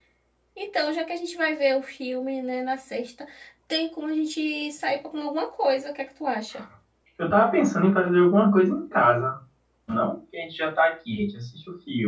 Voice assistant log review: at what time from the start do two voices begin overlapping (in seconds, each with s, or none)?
none